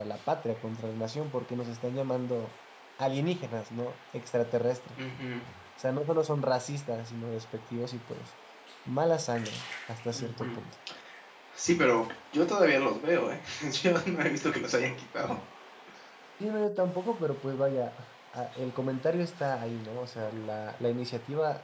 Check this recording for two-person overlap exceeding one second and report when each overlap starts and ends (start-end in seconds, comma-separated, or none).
none